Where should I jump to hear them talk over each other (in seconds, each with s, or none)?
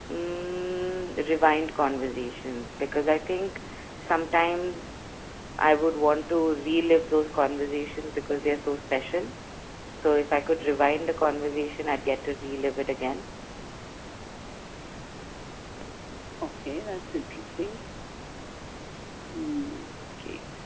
none